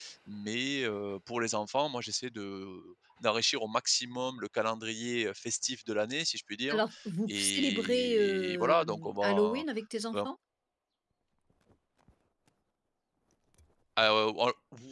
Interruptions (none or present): present